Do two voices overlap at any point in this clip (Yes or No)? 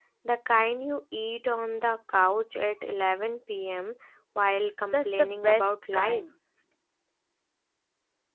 Yes